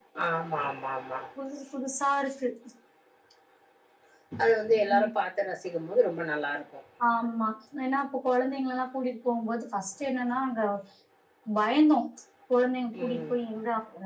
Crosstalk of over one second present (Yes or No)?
No